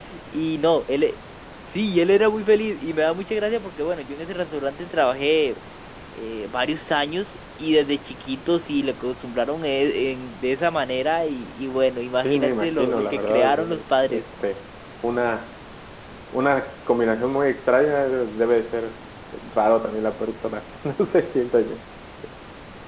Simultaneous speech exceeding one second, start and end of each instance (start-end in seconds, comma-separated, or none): 12.2-13.8